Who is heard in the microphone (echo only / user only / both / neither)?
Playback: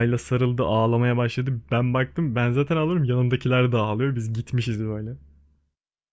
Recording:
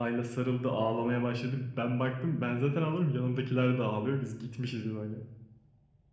echo only